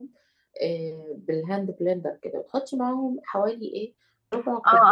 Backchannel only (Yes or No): No